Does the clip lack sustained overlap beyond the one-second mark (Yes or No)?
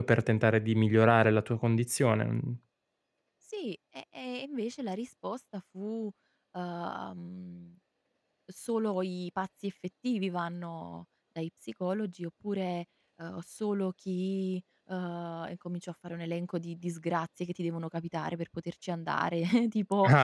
Yes